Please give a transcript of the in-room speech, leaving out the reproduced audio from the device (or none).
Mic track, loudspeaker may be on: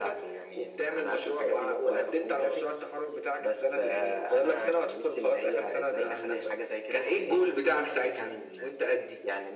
none